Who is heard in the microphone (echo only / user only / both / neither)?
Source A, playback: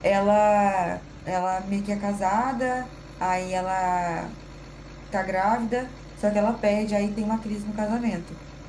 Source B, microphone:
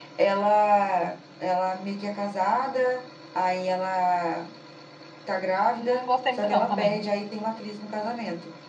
both